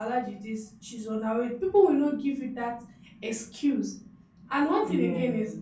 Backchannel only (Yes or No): Yes